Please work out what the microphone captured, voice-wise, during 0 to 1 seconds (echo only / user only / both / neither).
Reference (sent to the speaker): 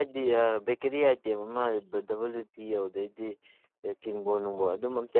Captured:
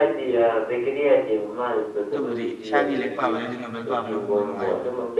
echo only